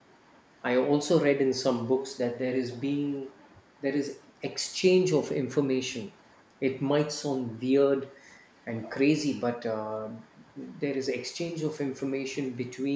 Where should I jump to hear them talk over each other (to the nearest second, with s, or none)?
none